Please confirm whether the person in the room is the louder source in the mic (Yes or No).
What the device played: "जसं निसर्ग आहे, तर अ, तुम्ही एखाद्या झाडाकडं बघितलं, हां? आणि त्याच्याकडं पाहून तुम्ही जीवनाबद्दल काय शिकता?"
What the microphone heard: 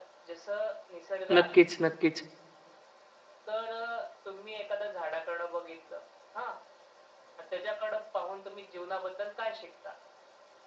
Yes